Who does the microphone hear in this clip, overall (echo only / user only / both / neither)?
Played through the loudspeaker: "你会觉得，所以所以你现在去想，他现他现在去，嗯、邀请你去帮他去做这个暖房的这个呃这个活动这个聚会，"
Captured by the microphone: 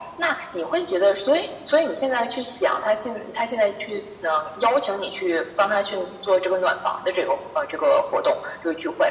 echo only